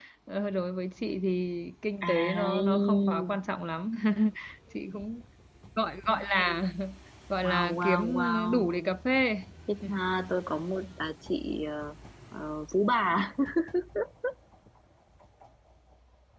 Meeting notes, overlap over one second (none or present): present